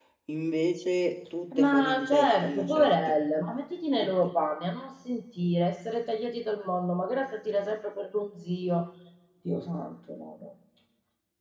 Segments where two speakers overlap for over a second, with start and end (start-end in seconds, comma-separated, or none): 1.6-3.2